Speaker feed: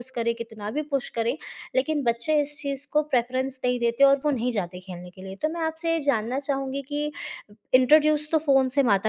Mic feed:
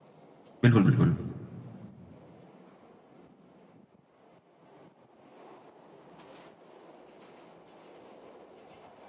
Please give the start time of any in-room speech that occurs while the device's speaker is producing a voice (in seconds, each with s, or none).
0.6 s